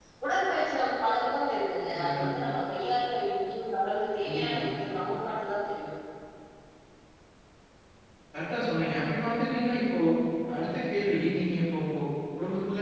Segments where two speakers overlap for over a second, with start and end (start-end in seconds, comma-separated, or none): none